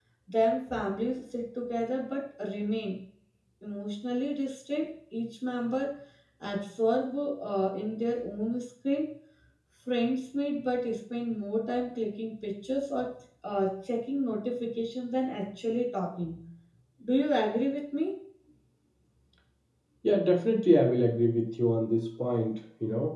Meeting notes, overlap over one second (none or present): none